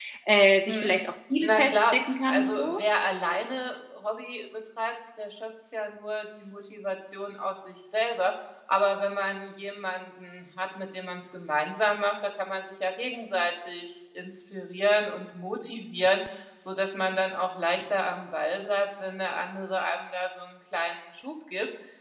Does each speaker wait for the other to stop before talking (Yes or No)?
No